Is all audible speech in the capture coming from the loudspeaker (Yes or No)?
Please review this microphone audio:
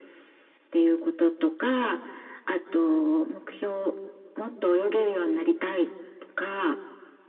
Yes